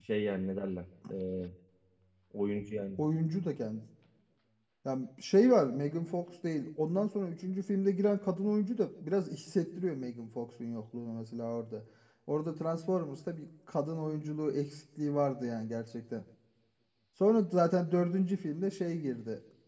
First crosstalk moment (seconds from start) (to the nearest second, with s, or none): none